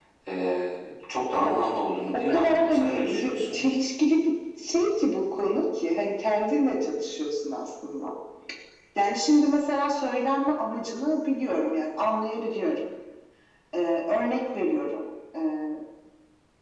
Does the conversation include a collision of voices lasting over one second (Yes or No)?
Yes